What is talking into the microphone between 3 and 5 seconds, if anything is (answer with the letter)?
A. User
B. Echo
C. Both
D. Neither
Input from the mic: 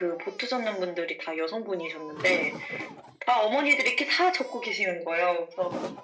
B